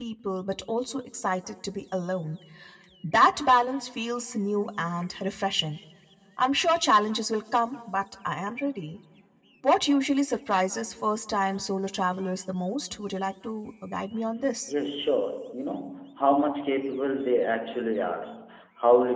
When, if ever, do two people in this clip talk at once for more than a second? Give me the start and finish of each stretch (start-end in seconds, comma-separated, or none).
none